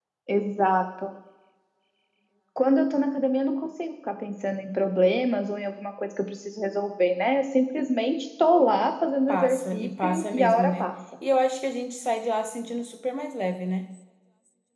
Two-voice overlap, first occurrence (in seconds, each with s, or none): 9.3 s